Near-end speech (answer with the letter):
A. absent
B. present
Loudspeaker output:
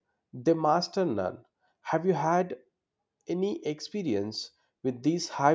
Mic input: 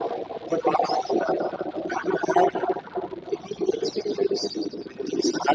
A